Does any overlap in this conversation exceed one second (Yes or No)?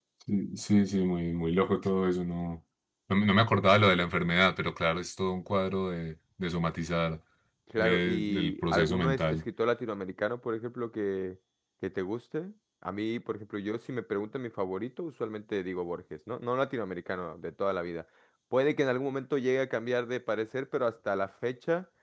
Yes